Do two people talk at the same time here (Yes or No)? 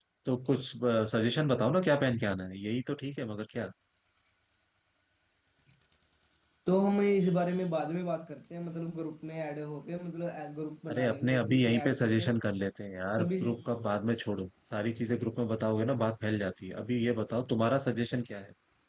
Yes